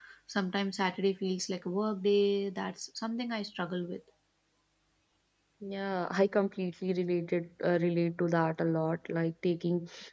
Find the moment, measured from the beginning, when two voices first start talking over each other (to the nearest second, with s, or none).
none